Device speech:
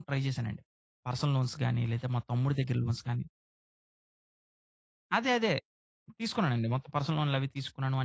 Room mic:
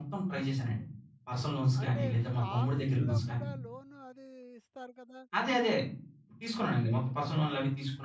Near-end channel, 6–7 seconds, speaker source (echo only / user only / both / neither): echo only